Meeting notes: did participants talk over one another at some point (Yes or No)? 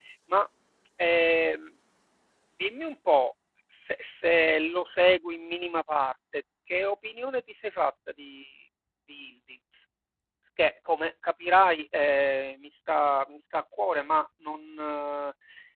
No